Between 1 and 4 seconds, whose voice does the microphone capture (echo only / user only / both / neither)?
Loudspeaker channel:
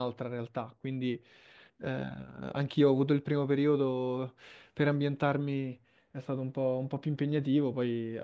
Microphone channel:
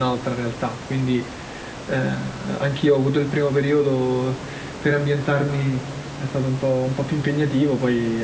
echo only